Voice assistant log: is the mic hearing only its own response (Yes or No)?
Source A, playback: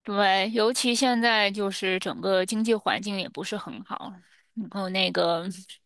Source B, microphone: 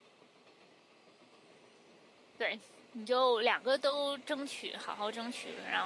No